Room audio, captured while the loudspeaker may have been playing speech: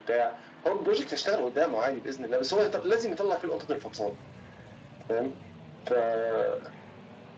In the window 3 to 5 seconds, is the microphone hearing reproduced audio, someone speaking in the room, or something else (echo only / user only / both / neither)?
echo only